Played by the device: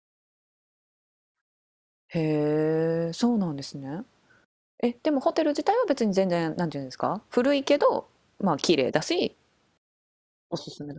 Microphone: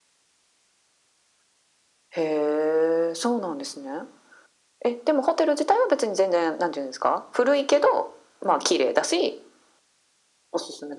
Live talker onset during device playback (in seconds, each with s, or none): none